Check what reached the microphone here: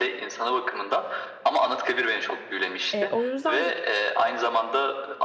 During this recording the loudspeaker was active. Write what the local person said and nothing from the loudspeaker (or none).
e, o yüzden gibi